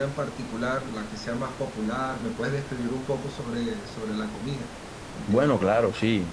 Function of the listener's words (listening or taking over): taking over